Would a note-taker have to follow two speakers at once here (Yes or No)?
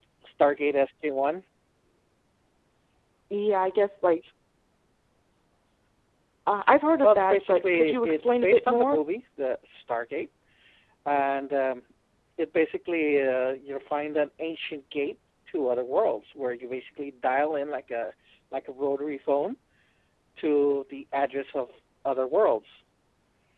Yes